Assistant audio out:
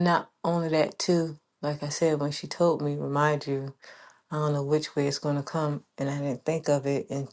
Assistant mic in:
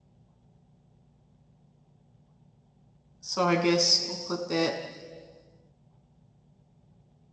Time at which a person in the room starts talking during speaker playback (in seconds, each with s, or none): 3.2 s